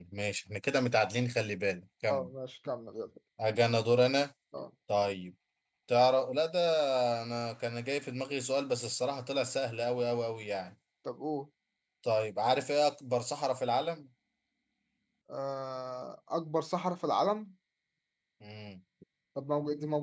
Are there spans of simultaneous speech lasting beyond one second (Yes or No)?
No